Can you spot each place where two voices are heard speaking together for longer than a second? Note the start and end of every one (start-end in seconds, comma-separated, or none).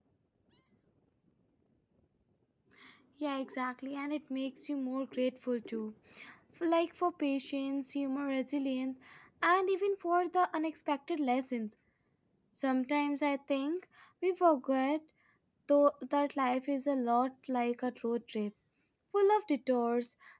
none